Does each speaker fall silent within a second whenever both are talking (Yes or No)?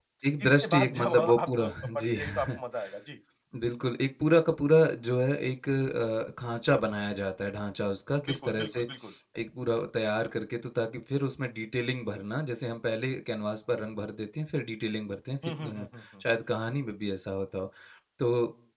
No